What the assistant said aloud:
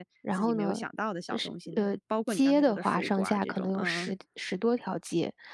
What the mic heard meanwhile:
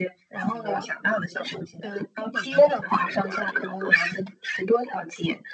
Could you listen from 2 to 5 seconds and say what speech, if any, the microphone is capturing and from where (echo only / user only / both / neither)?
echo only